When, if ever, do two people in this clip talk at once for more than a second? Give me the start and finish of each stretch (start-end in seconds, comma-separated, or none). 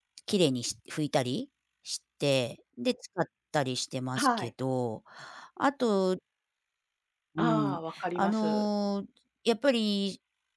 7.4-8.7